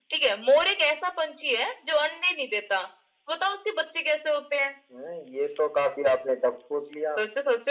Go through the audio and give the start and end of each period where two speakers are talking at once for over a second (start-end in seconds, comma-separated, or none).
none